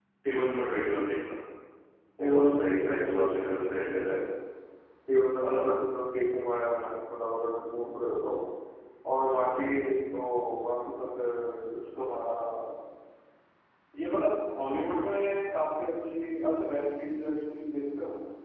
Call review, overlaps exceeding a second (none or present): present